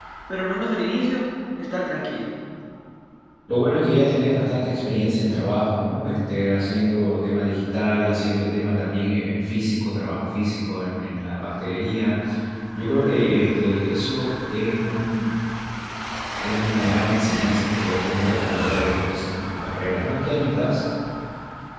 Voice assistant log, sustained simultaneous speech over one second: none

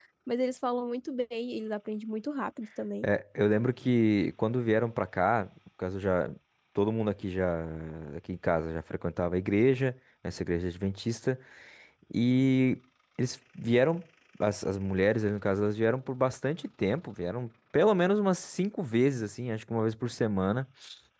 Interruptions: none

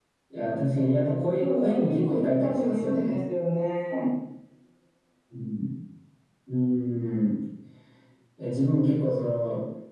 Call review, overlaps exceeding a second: present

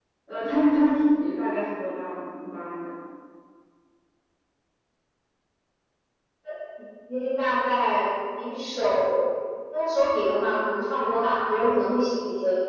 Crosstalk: none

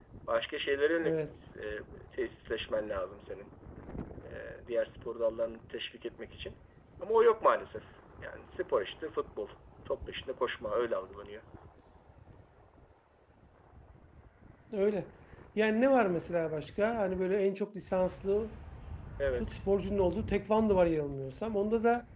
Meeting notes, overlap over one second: none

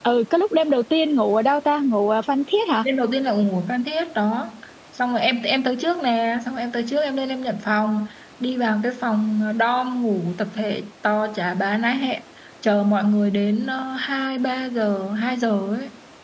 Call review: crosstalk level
none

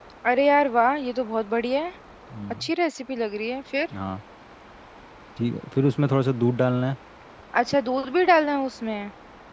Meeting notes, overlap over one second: none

